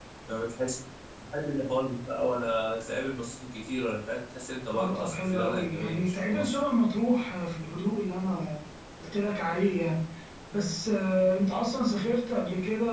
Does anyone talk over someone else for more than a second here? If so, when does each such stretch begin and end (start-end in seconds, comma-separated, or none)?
4.8-6.6